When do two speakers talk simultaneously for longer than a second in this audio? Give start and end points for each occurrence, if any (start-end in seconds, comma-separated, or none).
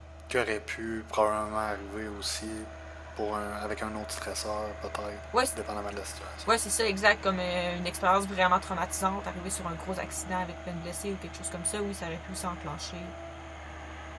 none